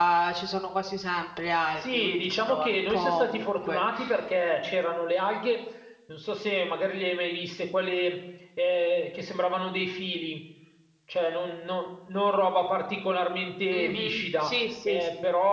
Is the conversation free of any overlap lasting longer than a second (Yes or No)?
No